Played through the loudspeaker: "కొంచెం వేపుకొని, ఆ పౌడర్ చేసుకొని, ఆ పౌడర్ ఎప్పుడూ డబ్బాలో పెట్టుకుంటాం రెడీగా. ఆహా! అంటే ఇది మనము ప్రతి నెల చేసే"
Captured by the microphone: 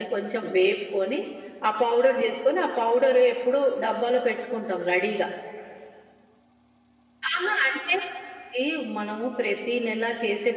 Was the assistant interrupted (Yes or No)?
No